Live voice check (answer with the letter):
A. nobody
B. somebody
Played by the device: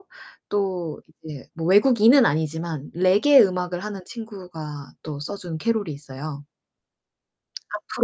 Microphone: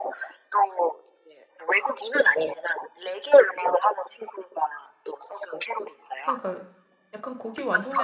B